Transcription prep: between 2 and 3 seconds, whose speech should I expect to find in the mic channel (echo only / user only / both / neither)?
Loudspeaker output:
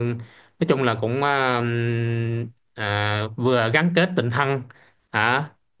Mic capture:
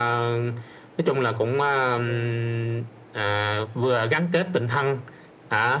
both